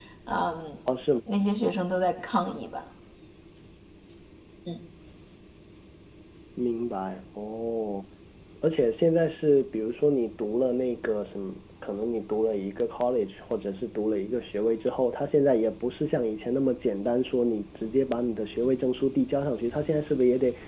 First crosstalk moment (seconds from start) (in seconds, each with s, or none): none